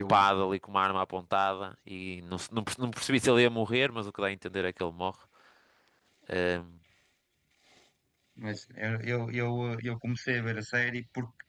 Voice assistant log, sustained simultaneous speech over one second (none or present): none